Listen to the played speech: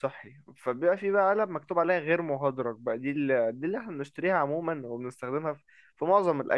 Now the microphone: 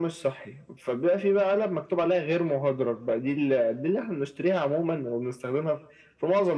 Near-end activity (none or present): none